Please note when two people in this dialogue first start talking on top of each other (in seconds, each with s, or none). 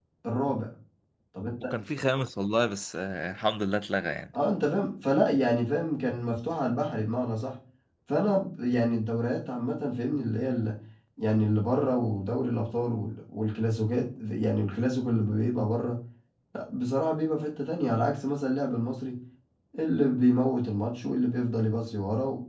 none